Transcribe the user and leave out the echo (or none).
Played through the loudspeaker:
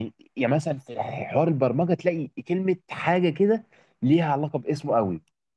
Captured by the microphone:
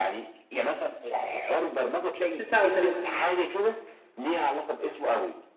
39